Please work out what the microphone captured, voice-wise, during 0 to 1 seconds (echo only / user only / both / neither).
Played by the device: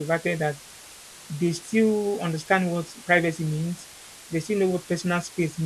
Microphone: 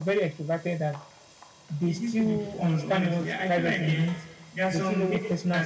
echo only